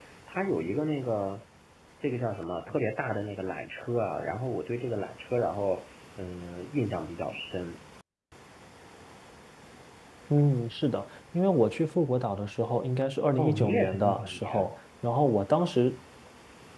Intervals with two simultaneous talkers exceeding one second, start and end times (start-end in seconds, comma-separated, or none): 13.4-14.7